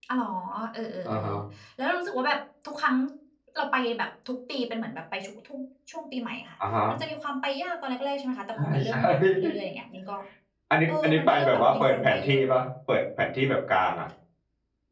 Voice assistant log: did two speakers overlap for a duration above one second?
Yes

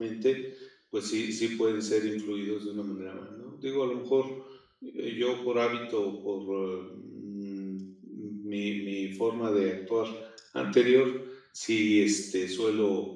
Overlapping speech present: No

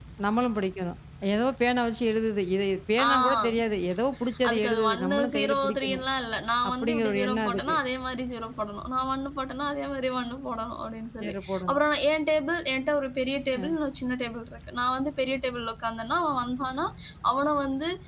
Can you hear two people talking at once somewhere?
Yes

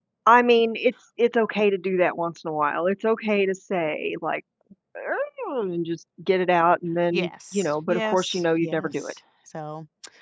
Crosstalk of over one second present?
Yes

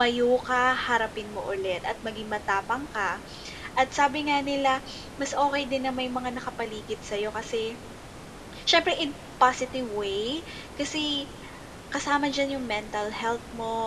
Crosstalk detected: No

